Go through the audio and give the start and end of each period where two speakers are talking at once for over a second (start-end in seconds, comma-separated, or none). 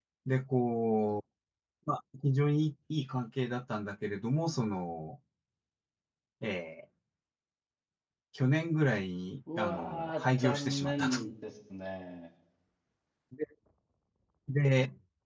9.6-11.2